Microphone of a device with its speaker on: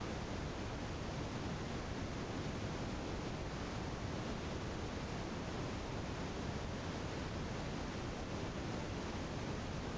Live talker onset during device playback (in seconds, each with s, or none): none